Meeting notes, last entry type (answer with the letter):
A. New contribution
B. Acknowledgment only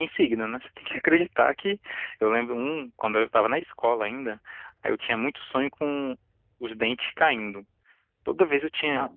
A